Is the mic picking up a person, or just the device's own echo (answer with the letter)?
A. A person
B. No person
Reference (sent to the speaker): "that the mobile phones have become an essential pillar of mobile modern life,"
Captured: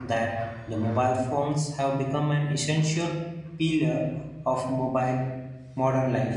B